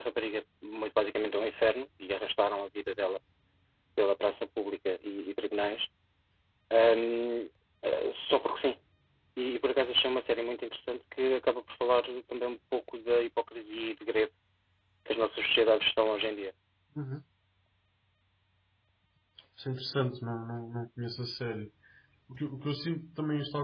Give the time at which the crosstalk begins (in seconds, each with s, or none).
none